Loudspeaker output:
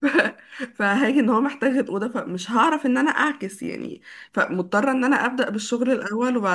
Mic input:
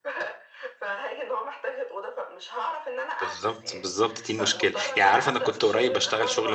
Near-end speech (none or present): present